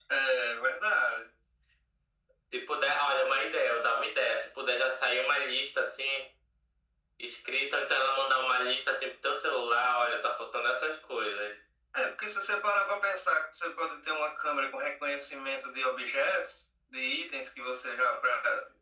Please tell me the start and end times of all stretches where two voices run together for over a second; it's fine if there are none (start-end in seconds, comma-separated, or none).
none